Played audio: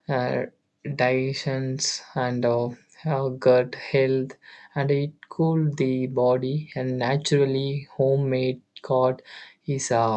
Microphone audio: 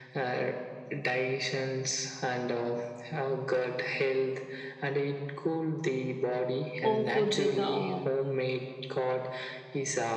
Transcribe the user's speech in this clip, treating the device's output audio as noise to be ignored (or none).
home food with the uh,